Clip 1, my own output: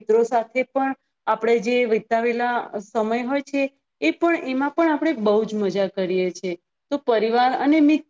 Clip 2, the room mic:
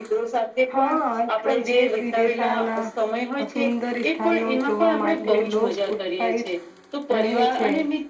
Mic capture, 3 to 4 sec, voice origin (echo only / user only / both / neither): both